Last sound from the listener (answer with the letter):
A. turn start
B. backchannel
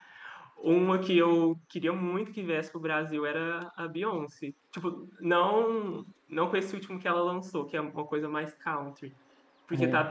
B